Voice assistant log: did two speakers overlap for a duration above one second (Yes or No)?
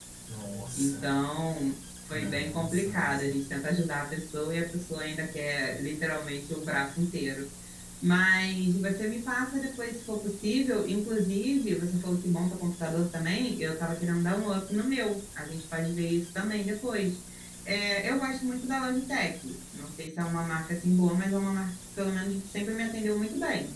Yes